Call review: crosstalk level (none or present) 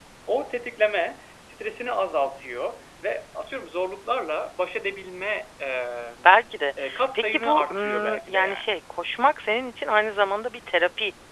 present